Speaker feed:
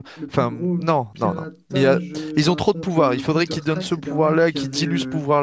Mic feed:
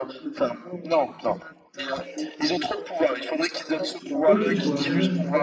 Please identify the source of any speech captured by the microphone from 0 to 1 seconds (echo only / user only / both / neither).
echo only